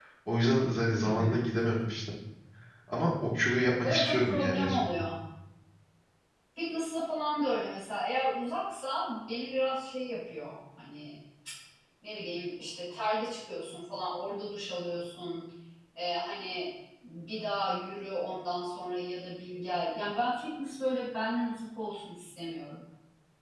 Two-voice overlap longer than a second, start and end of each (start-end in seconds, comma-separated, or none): 3.8-5.0